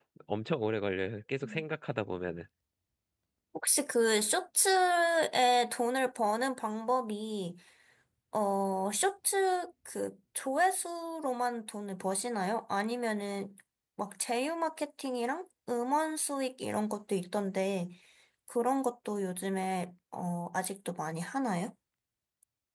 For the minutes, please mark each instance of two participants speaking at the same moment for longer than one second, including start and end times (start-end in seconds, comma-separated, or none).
none